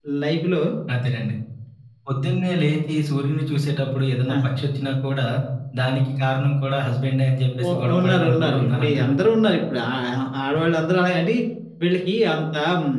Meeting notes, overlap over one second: present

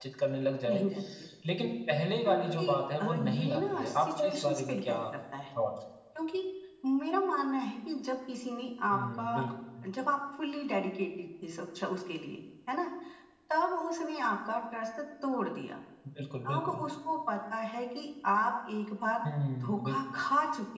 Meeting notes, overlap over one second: present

